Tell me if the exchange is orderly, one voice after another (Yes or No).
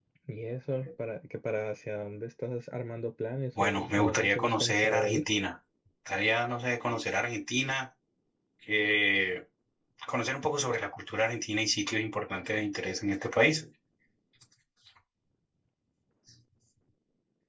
No